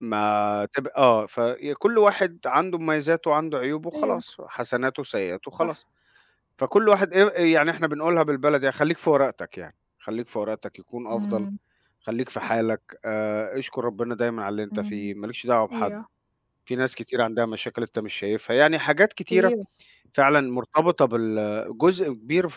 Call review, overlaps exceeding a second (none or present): none